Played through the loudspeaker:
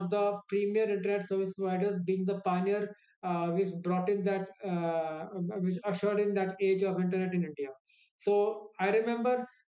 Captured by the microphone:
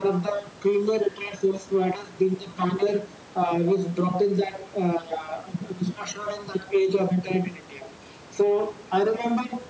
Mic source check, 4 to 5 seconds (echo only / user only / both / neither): echo only